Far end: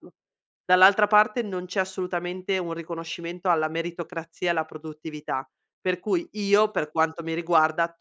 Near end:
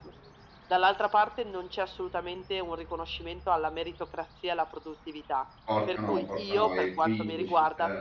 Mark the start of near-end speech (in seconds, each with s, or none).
5.7 s